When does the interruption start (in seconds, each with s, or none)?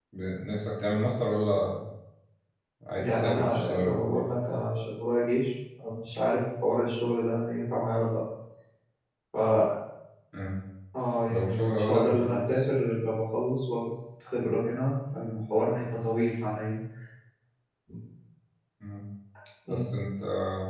3.0 s